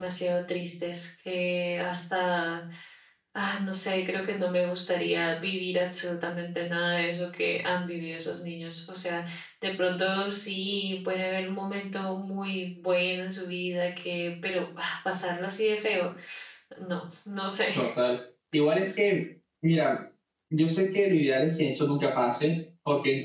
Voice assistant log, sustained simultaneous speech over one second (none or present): none